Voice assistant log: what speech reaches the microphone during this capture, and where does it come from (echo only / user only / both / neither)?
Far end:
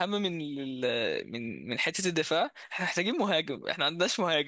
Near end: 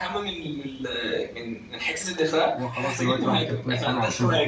both